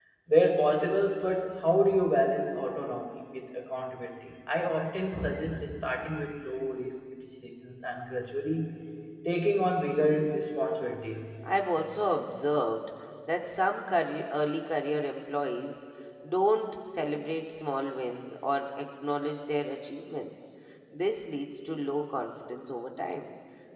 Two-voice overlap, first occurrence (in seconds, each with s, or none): none